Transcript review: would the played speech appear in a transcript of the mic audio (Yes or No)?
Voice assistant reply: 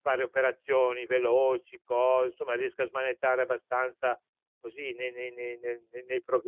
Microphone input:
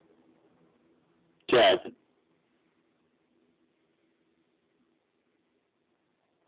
No